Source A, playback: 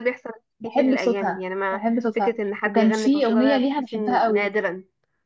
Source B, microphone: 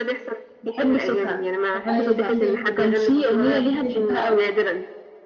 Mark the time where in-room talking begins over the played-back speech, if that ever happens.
1.9 s

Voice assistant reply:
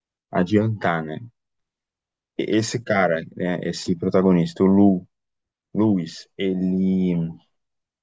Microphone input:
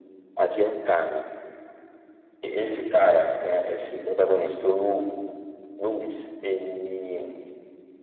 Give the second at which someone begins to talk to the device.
none

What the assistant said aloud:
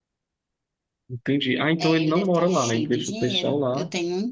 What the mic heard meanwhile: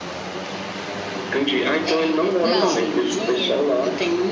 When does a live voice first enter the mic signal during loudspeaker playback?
2.4 s

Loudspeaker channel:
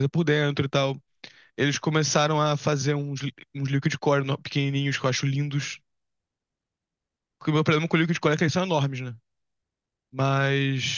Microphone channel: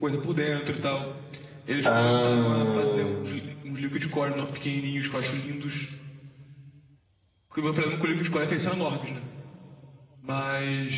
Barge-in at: 1.8 s

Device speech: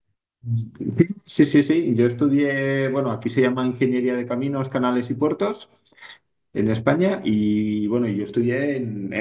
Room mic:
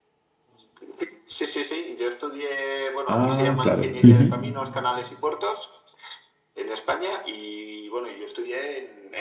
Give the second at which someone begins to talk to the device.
3.0 s

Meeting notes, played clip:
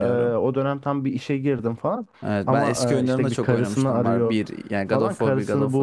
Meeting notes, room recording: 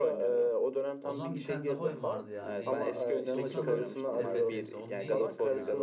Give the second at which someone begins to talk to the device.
1.0 s

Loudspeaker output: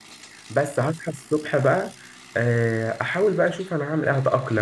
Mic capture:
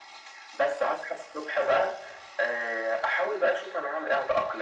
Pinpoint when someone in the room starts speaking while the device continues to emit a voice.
none

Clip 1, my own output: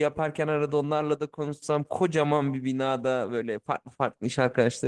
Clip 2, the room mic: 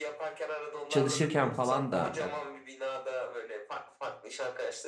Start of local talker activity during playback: 0.9 s

